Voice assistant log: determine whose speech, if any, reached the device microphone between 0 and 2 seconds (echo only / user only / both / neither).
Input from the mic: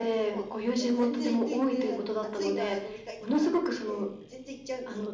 echo only